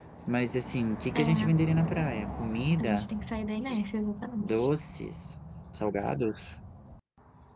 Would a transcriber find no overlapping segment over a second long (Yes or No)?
Yes